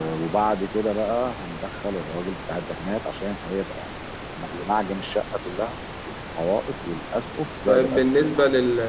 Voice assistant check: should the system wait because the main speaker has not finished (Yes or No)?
No